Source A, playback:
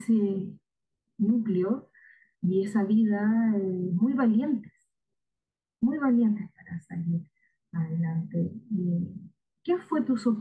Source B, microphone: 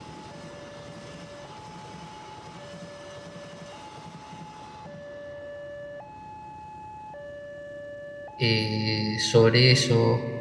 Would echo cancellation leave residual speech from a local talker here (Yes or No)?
Yes